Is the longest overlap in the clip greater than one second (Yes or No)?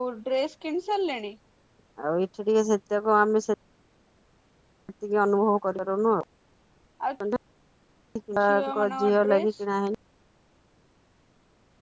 Yes